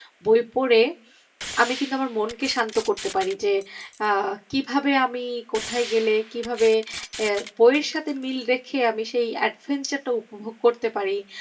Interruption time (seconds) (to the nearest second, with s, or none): none